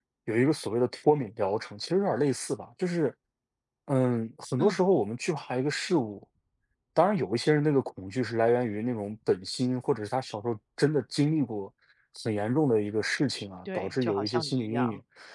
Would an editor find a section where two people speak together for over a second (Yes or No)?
Yes